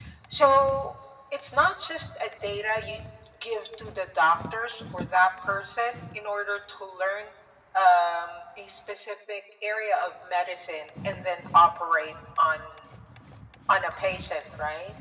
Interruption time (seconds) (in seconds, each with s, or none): none